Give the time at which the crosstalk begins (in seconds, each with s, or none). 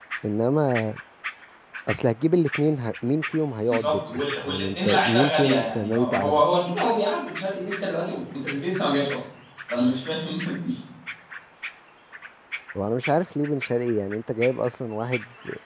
3.7 s